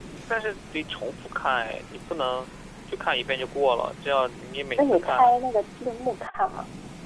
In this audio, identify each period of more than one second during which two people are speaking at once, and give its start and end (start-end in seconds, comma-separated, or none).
none